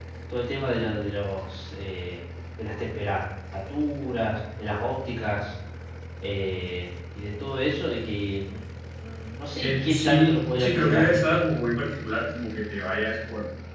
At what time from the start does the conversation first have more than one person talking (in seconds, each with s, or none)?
9.6 s